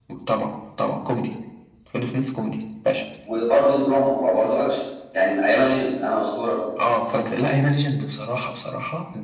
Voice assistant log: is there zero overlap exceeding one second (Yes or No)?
Yes